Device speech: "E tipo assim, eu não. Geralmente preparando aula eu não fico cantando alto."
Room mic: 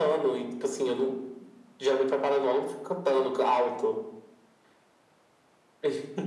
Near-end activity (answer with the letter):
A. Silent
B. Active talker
A